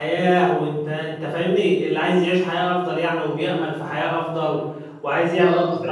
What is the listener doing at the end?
listening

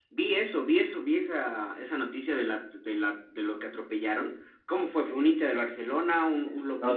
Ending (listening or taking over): taking over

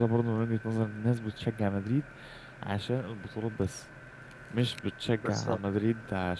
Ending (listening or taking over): listening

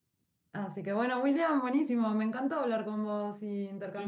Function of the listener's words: taking over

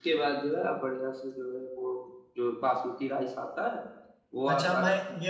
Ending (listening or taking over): taking over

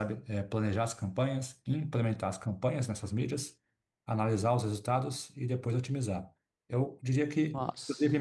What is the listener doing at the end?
listening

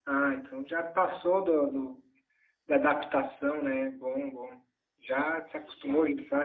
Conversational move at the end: listening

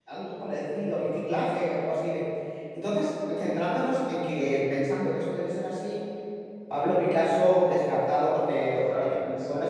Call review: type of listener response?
listening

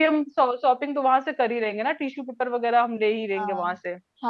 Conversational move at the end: taking over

